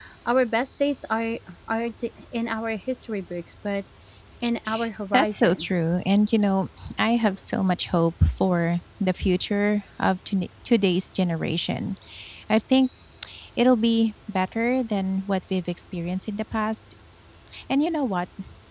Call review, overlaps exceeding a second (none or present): none